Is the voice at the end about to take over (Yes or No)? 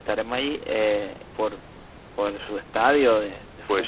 Yes